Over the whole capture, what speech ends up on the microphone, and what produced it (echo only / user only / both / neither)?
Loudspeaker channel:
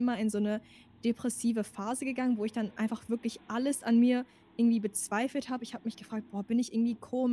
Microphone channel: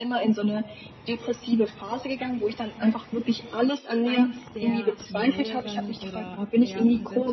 both